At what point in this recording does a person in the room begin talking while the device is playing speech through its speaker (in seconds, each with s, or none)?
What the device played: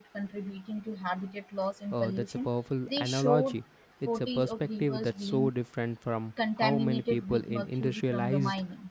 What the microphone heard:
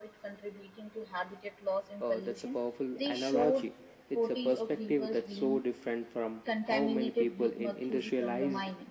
none